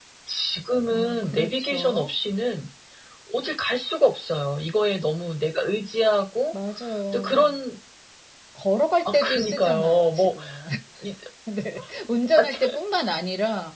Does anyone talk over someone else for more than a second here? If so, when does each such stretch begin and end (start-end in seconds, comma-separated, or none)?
0.9-2.1, 9.1-10.3